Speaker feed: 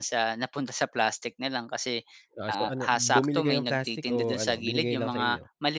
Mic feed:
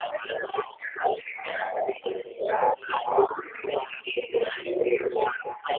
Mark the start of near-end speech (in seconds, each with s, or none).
none